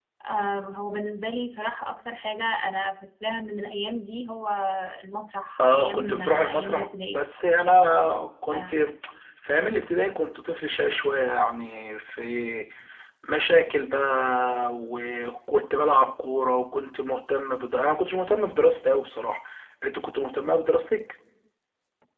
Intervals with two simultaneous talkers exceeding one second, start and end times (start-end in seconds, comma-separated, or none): 5.6-7.2